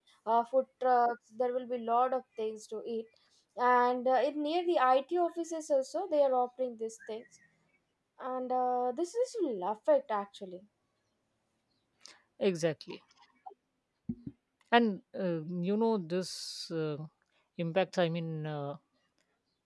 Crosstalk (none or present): none